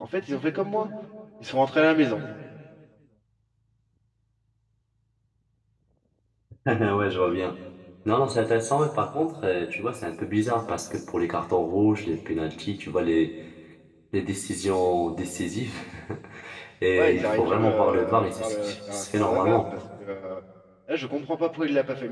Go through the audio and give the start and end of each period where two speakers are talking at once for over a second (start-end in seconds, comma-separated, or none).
17.0-19.6